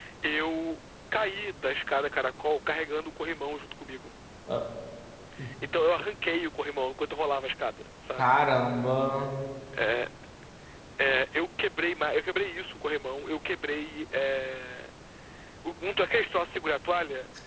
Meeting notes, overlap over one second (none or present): none